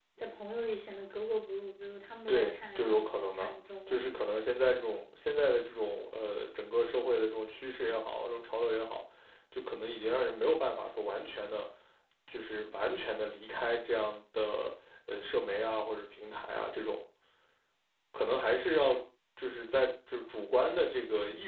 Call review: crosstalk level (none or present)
present